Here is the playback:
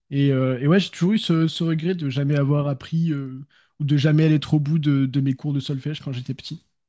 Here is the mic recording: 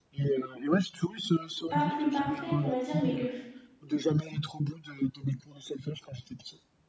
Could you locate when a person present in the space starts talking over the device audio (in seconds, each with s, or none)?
1.7 s